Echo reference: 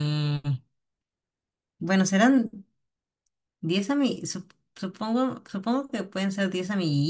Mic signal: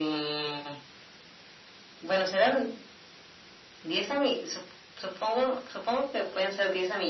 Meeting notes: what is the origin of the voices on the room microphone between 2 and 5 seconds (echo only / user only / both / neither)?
echo only